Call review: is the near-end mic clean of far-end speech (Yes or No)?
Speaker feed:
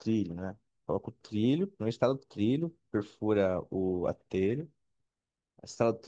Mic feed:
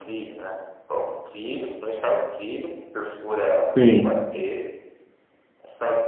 No